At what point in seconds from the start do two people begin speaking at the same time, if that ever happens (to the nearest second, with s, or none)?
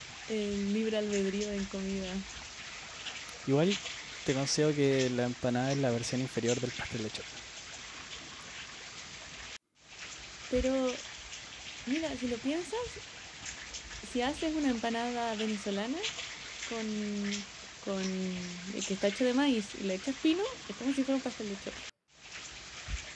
none